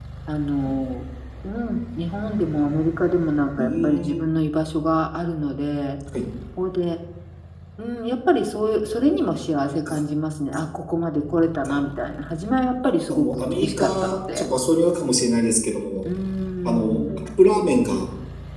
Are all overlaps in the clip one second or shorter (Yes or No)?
No